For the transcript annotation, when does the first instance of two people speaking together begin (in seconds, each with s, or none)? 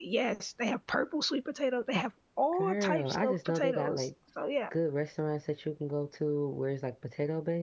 2.5 s